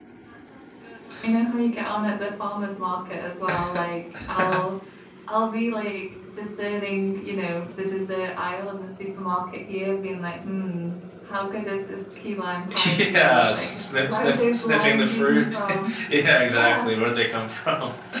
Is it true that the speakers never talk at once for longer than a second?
No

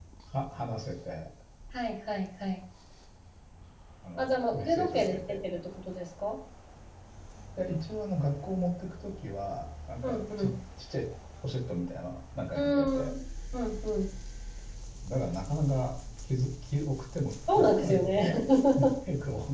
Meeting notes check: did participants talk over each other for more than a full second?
Yes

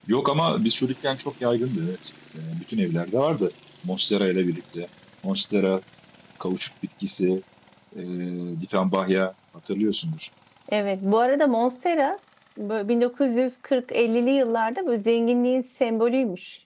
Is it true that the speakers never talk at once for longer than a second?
Yes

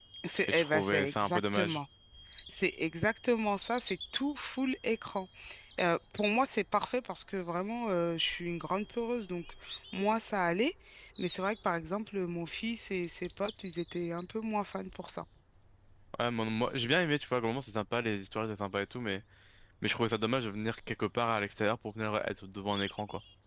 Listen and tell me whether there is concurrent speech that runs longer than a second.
Yes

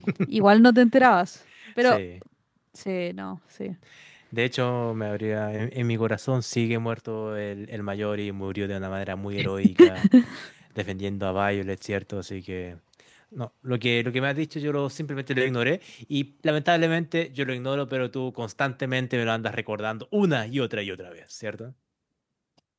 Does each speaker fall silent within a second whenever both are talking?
Yes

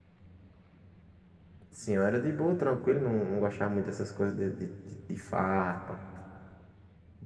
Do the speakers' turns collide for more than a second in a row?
No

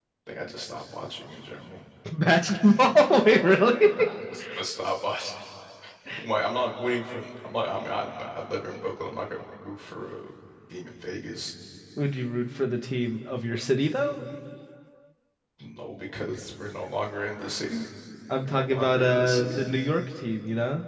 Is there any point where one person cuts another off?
Yes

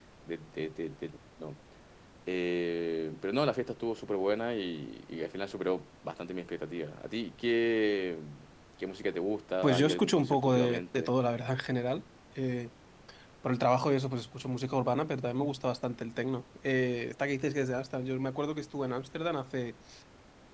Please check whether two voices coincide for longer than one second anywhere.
Yes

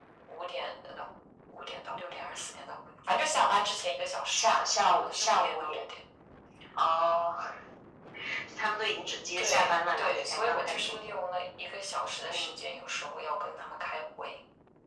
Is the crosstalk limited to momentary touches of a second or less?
No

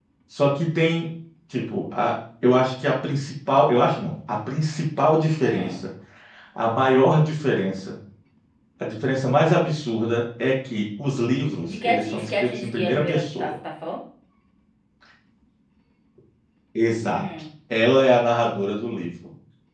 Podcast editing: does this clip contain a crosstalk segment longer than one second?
Yes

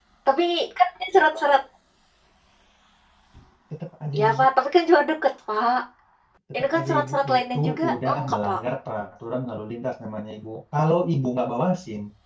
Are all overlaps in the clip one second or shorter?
No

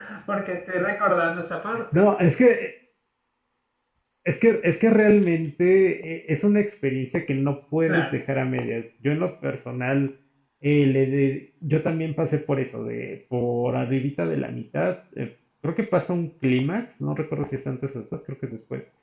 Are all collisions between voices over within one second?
Yes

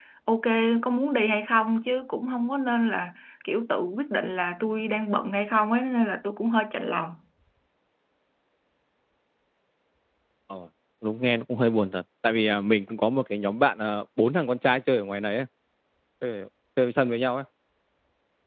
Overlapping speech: No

